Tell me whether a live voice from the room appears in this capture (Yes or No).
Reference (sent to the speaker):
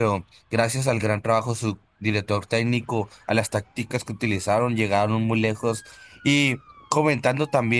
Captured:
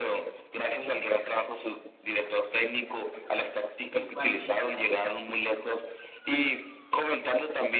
Yes